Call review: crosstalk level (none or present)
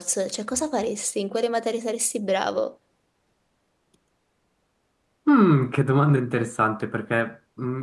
none